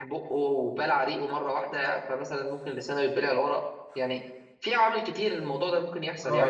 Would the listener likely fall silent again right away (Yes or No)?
No